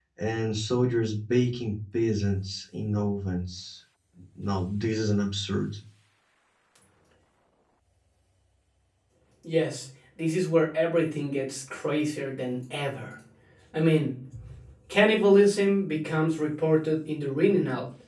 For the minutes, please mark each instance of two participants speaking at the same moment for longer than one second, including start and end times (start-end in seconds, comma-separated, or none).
none